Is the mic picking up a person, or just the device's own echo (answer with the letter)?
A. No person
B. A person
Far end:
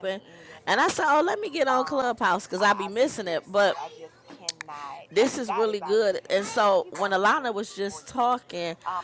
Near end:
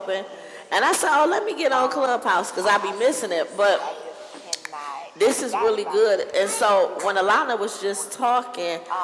A